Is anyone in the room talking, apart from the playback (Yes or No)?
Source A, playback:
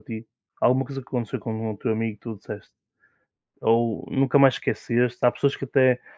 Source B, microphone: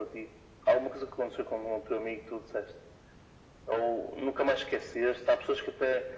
No